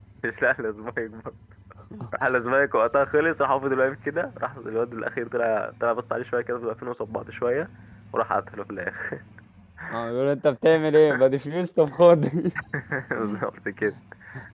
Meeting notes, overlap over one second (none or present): none